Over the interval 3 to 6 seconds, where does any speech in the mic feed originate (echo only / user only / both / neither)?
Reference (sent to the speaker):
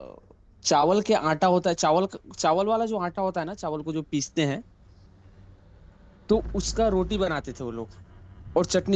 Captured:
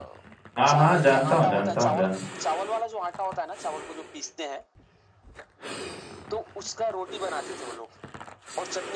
echo only